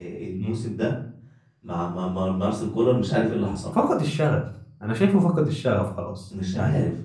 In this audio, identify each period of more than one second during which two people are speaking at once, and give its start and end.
none

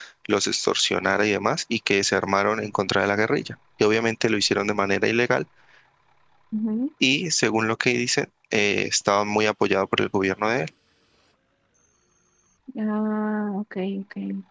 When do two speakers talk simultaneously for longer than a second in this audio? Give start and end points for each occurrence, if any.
none

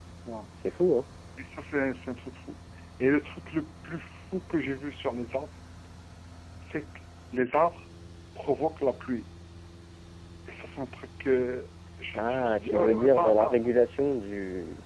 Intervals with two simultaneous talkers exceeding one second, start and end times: 12.1-13.6

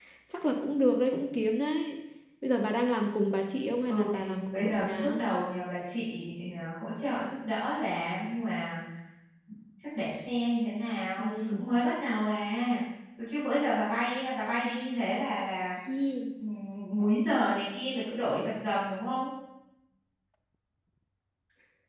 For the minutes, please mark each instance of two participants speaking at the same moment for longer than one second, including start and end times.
3.8-5.2

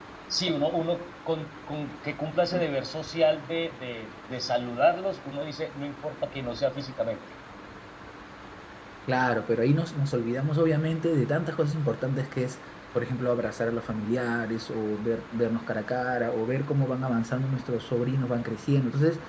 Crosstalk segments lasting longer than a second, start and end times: none

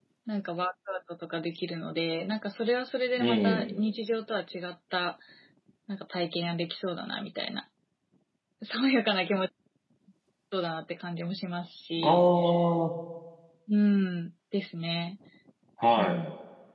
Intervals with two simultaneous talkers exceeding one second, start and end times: none

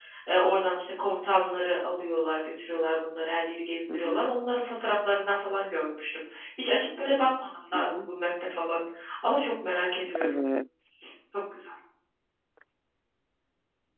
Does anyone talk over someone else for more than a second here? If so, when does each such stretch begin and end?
none

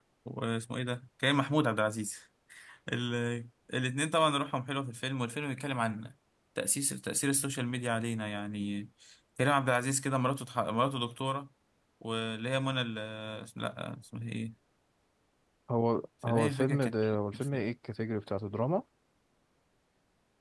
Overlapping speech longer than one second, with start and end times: 16.3-17.6

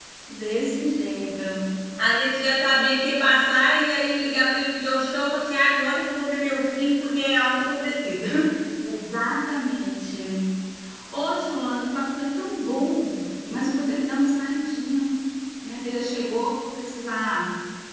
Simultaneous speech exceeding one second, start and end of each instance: none

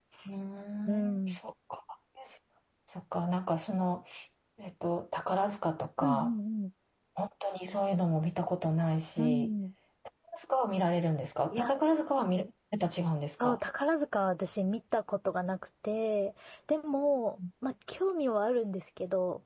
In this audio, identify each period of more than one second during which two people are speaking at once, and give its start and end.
none

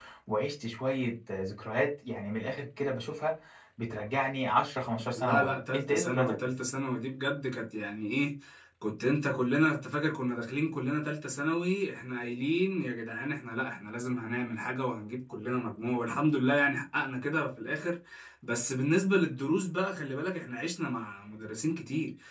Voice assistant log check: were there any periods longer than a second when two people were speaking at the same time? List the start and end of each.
5.1-6.3

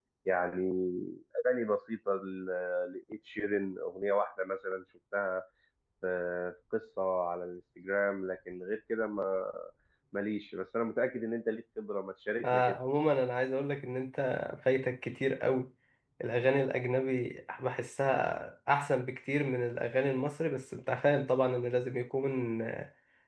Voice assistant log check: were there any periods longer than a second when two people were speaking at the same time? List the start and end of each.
none

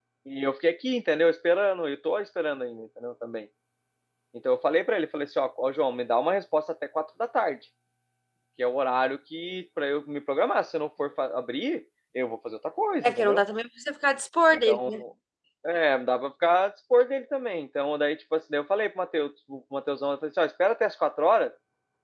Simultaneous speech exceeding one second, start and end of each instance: none

